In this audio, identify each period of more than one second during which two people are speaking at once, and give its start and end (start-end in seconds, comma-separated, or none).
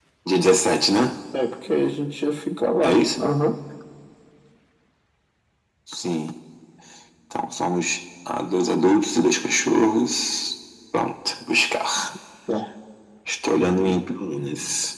none